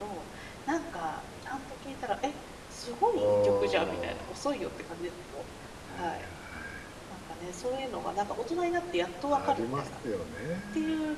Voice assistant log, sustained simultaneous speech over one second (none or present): present